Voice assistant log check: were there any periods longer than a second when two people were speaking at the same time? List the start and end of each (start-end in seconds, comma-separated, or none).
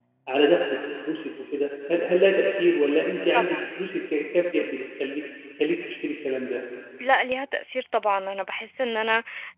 none